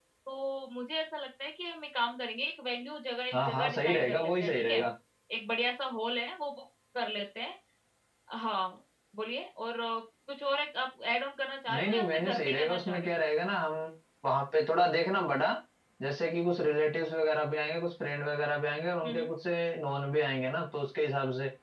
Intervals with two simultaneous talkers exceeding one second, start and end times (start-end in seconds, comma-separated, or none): 3.3-4.8, 11.8-13.2